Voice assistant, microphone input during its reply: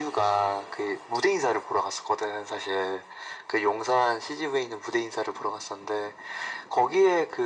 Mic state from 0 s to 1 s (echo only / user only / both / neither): echo only